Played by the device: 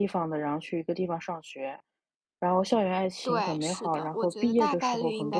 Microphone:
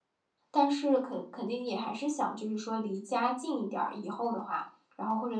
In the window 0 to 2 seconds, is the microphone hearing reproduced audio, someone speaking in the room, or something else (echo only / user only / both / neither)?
user only